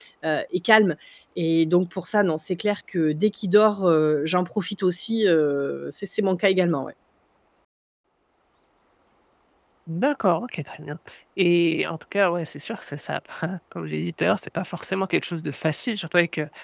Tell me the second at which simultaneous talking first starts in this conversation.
none

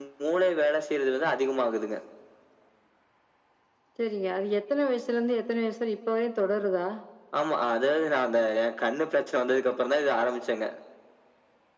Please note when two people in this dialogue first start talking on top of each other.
none

